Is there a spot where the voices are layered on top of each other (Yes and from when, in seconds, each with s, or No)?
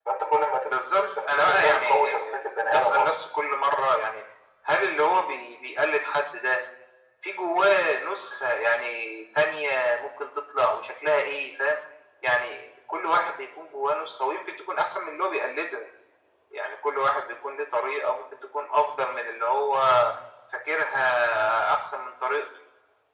Yes, from 0.9 s